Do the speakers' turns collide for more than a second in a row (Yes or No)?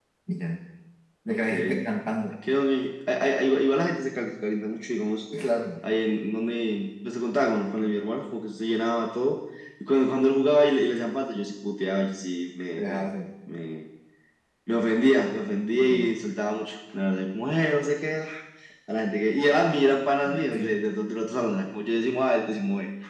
No